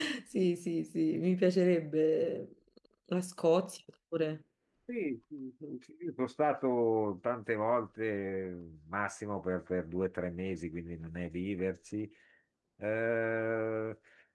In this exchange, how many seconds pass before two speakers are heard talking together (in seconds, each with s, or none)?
none